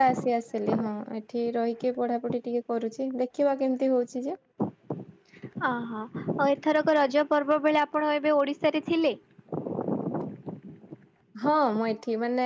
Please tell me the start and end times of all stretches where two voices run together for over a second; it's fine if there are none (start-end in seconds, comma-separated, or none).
none